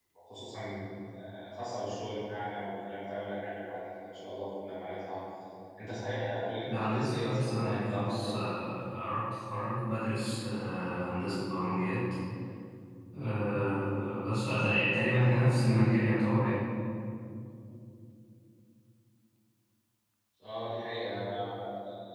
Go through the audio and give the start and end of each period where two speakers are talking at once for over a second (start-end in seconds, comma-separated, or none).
6.7-8.3